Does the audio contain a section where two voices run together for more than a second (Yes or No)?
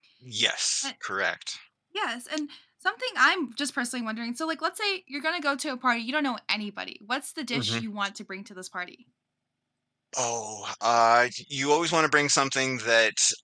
No